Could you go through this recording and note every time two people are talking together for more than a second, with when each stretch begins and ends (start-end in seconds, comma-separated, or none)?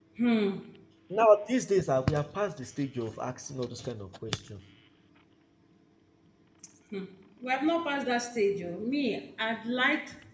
none